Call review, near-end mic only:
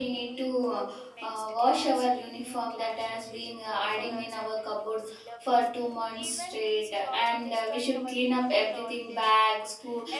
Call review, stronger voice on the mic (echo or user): user